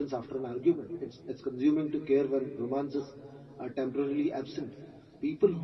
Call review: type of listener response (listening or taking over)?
listening